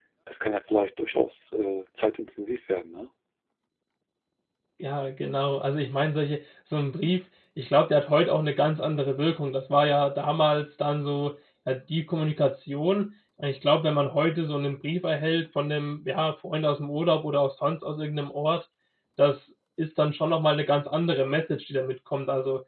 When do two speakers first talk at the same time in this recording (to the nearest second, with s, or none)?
none